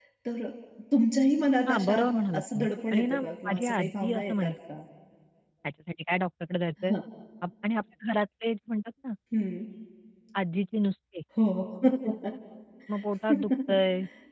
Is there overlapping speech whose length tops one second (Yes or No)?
Yes